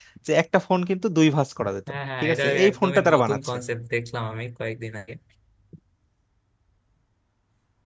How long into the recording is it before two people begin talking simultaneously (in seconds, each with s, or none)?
1.9 s